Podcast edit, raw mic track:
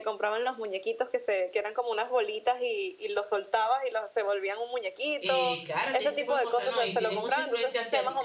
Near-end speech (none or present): present